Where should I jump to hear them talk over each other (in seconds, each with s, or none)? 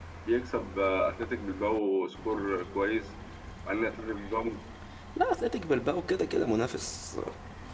none